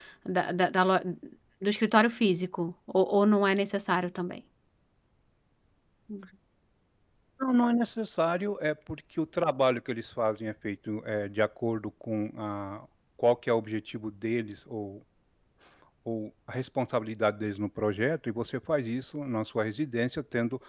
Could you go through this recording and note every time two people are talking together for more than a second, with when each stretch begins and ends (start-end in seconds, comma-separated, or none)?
none